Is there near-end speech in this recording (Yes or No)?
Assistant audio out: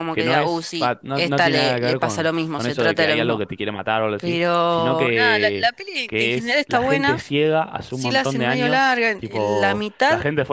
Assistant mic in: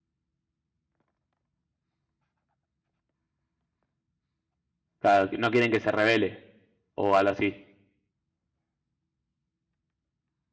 Yes